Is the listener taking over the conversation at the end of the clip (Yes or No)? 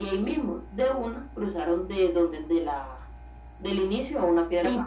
Yes